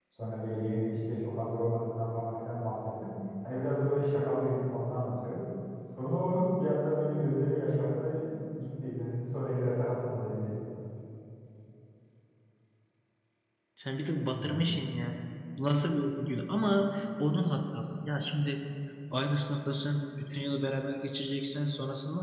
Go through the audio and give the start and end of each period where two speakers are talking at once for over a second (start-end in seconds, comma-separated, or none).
none